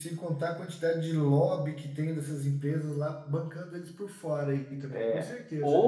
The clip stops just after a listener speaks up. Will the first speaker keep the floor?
No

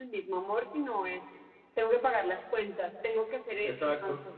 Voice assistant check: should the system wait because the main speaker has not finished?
Yes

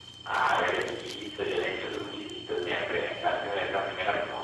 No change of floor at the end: No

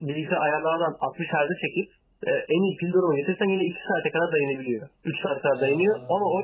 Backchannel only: Yes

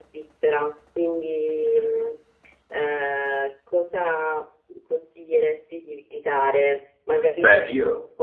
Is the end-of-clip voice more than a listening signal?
No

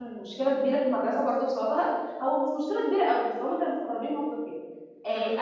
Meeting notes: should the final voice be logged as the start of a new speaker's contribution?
No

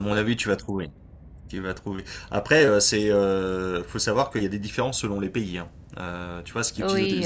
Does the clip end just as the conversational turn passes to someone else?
No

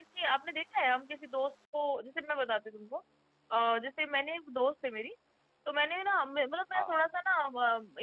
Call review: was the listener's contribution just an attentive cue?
Yes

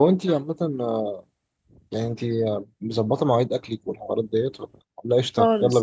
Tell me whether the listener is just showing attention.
No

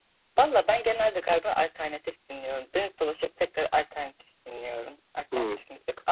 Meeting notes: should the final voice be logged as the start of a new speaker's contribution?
No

